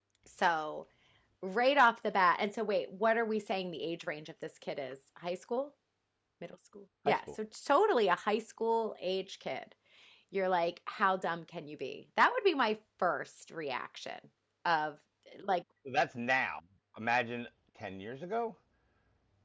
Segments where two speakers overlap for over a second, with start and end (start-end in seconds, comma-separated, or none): none